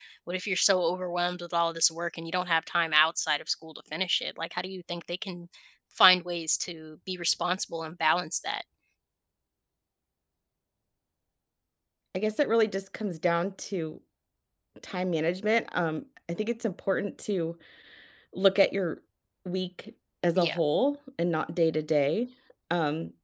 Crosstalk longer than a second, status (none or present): none